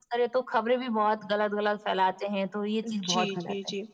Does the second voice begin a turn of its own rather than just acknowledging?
Yes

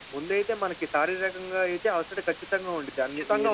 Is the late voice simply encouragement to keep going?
Yes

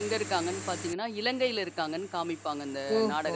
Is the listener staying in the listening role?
No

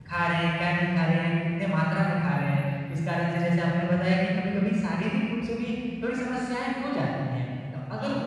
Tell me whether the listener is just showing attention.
Yes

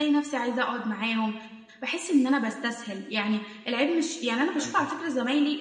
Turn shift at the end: No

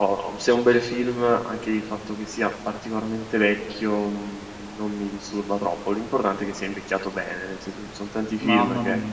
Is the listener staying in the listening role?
No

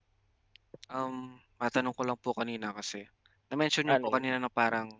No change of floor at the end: Yes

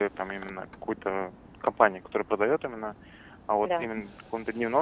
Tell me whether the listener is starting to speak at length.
No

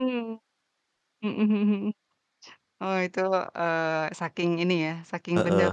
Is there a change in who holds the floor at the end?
Yes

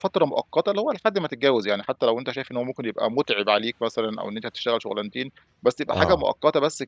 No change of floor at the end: Yes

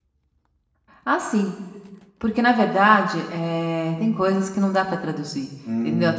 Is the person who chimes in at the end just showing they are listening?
No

